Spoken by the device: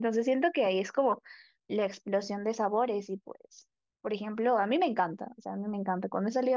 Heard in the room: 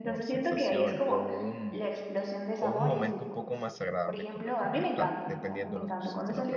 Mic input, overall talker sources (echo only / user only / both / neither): both